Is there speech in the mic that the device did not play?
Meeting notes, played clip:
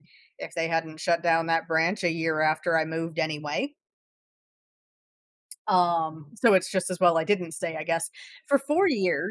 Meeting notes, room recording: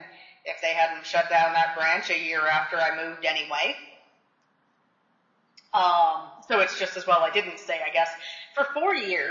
No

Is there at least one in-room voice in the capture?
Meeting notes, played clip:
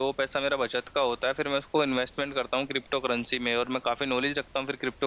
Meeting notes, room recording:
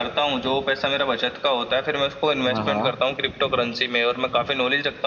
Yes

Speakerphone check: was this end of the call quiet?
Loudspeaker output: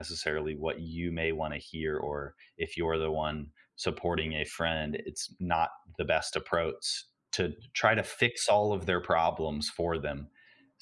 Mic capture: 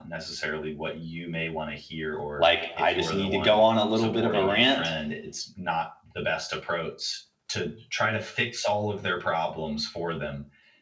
No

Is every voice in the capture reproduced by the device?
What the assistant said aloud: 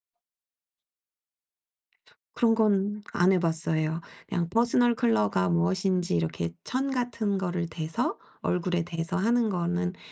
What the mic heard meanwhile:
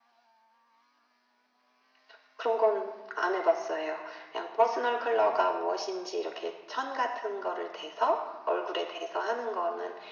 Yes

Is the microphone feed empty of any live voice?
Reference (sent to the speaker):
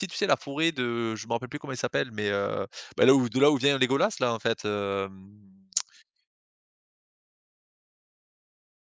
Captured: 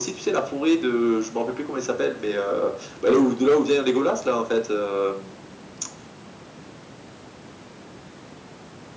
Yes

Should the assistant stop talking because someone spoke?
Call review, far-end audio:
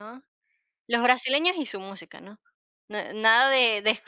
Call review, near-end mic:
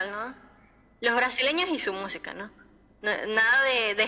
No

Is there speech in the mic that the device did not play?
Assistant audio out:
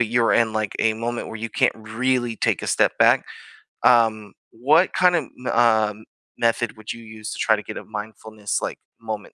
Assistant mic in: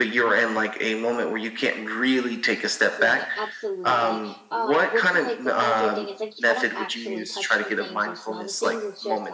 Yes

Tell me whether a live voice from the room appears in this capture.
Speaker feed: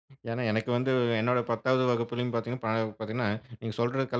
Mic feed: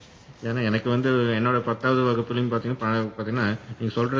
No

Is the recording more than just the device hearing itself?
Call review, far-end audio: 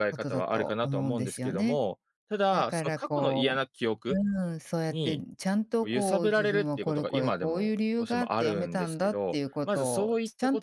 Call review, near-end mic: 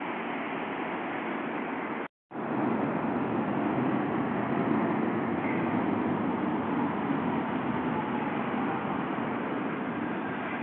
No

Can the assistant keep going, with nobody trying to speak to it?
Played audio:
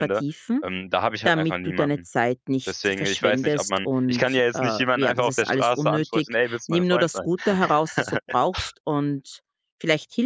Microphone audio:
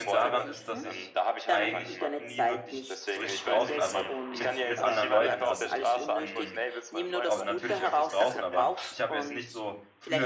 No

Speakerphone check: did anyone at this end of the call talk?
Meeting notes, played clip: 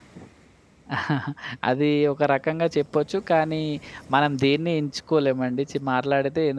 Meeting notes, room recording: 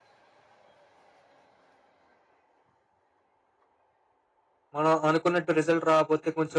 Yes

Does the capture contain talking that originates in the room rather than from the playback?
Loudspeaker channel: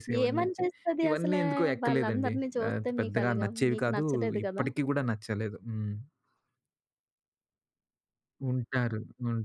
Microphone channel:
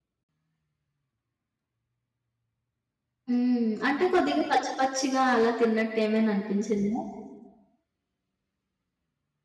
Yes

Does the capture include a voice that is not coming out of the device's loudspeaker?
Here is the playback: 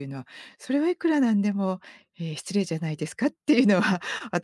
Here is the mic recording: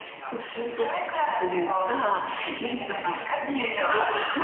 Yes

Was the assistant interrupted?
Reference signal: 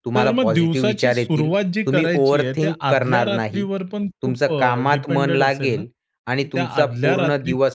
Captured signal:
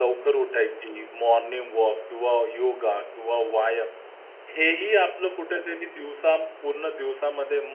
Yes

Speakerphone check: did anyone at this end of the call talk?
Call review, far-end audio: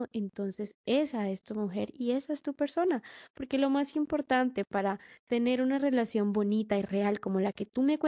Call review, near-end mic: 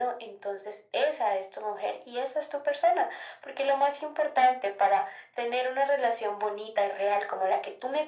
No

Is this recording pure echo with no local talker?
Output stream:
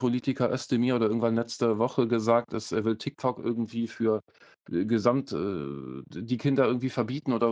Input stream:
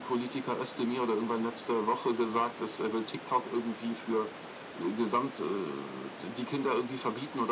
Yes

